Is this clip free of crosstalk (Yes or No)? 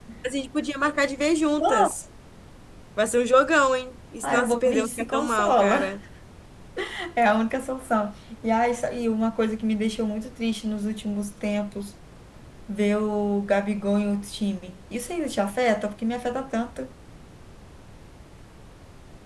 No